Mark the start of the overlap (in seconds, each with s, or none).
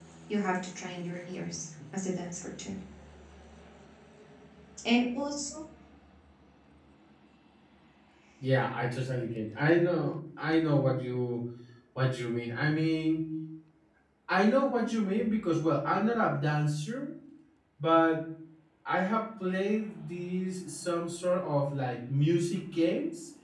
none